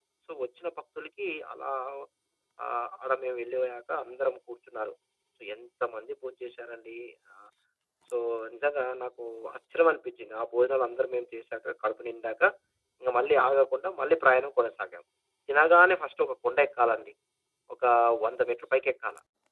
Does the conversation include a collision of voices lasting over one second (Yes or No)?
No